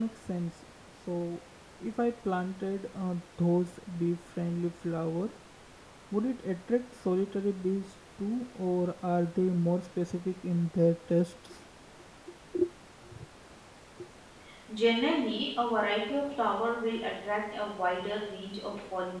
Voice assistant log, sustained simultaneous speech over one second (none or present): none